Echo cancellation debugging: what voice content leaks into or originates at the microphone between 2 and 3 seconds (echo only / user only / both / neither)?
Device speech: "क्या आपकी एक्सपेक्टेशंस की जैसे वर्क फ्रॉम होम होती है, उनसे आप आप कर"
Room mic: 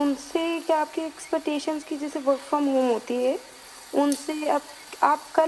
echo only